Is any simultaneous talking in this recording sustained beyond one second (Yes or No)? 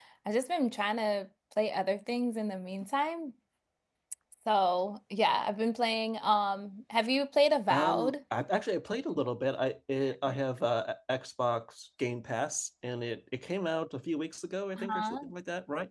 No